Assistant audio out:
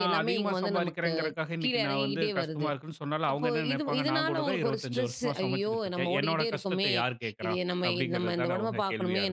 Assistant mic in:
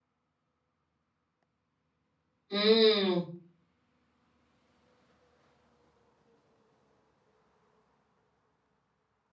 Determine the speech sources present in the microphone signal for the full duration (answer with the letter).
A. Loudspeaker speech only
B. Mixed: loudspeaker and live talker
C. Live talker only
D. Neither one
C